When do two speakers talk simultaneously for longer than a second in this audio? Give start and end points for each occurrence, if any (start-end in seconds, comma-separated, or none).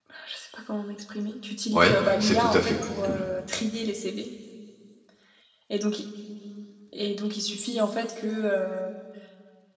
1.7-3.2